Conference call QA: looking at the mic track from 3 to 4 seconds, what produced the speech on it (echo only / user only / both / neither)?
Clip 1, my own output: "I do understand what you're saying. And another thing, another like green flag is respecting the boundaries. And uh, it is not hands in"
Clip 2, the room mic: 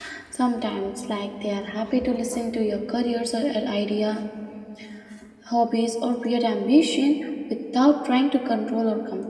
user only